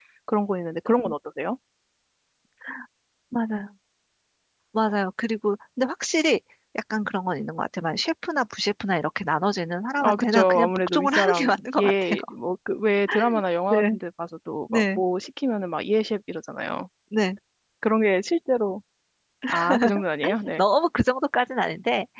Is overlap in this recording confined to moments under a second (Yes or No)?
No